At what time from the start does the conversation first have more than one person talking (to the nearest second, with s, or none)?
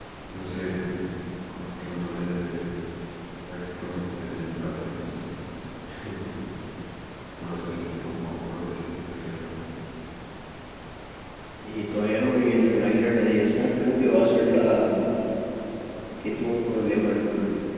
none